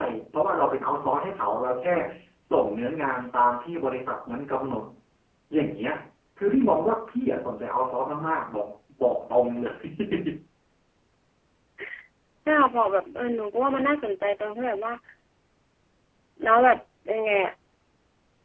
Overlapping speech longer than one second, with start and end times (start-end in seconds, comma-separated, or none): none